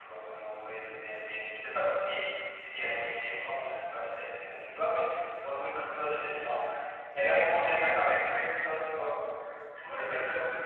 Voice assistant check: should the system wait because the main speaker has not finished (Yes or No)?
No